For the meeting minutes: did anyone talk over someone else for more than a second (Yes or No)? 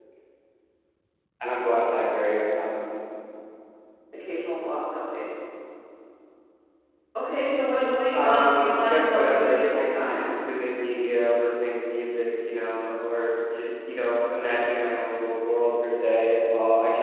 Yes